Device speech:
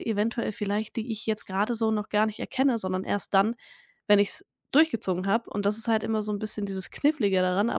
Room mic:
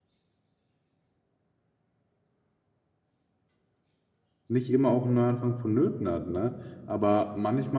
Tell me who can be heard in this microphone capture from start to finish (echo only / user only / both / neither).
user only